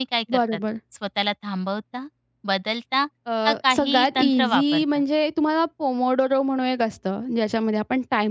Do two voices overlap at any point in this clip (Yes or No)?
Yes